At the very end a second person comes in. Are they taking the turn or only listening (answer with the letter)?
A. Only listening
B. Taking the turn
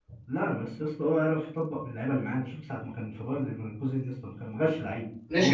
B